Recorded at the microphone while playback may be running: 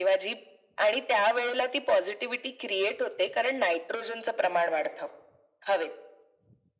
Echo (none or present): present